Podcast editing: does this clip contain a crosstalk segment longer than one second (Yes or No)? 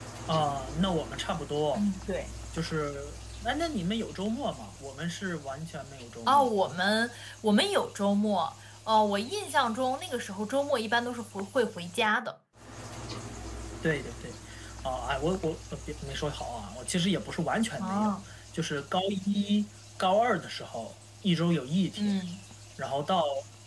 No